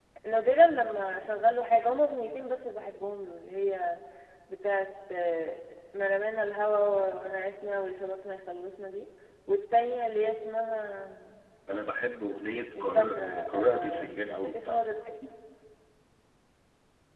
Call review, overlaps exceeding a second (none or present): present